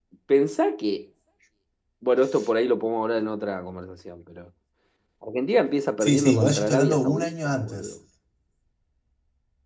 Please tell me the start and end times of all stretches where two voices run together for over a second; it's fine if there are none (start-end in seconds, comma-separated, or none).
6.0-7.9